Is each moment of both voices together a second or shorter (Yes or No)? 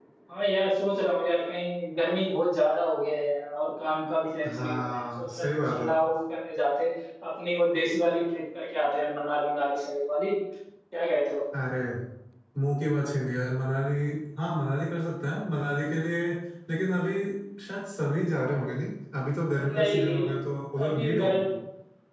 No